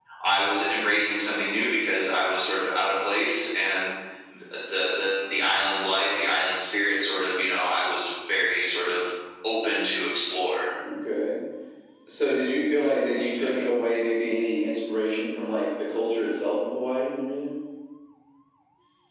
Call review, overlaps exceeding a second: none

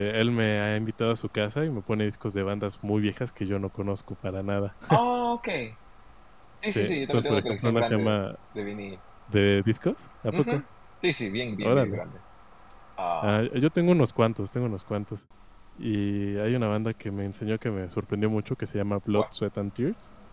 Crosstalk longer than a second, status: present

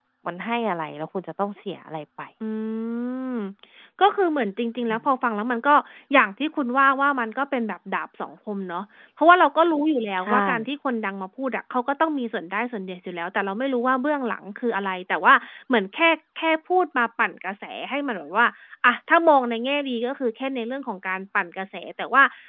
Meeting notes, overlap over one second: none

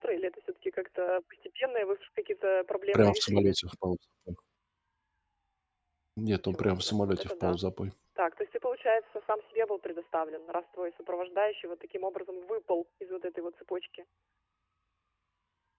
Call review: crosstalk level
present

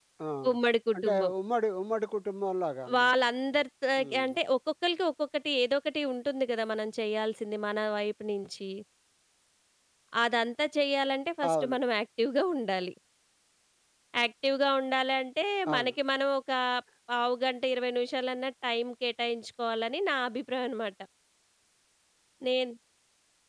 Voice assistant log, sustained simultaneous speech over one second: none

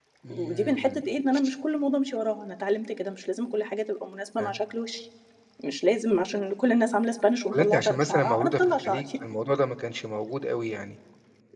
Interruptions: present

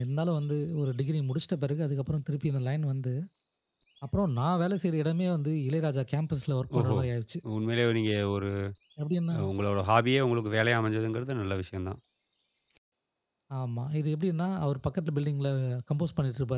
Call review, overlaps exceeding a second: none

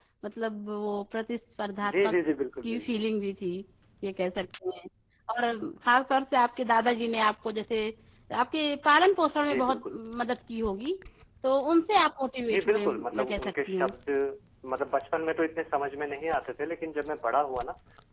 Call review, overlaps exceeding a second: present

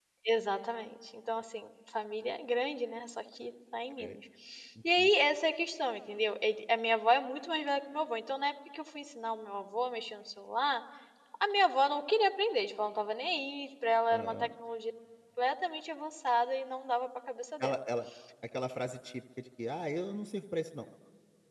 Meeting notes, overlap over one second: none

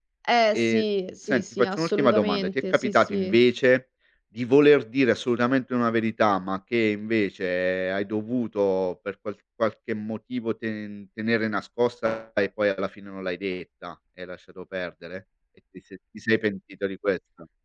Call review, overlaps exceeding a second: present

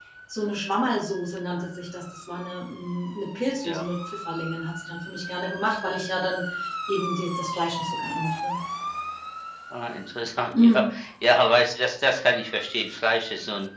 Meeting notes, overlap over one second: none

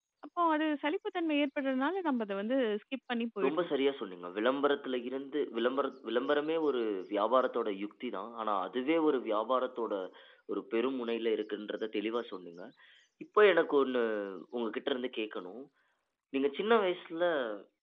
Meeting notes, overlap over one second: none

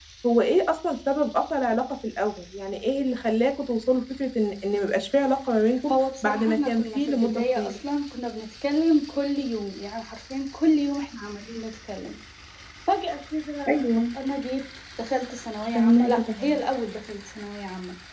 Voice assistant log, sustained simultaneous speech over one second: present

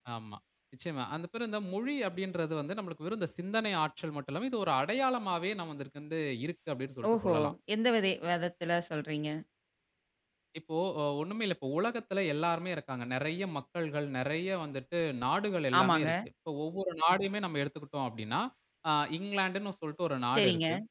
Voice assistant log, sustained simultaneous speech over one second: none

